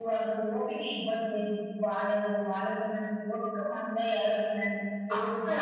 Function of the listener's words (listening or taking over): listening